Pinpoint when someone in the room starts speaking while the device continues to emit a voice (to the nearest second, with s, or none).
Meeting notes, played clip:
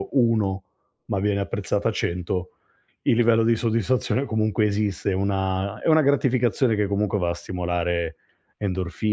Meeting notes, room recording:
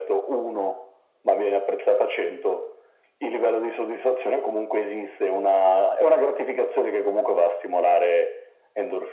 none